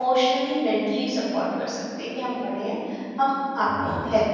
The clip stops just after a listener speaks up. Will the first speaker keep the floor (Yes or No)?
Yes